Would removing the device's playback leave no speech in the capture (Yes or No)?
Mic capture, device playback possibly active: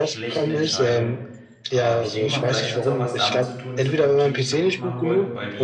No